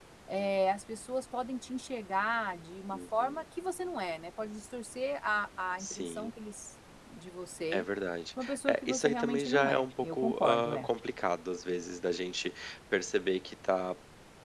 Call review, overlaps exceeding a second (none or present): present